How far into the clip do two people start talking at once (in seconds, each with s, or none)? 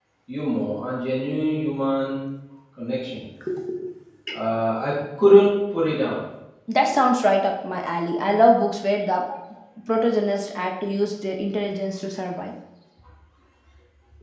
none